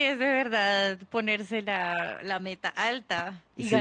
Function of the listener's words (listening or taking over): taking over